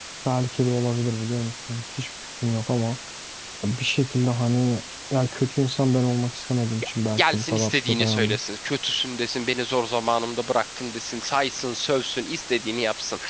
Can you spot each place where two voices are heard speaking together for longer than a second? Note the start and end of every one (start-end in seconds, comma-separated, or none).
7.1-8.4